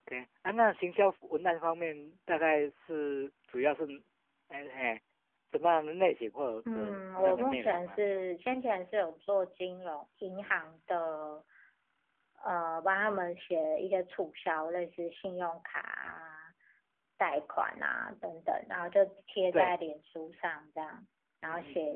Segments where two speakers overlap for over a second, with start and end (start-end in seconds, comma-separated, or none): 6.7-8.0